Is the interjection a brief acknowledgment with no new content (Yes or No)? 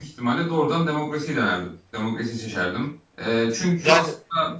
Yes